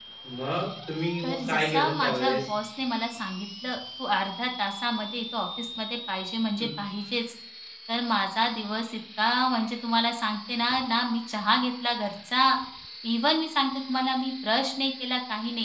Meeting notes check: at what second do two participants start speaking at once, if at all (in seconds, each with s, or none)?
1.2 s